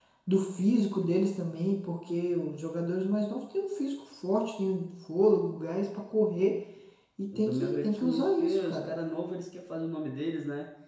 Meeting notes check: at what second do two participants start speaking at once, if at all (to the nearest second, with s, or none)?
7 s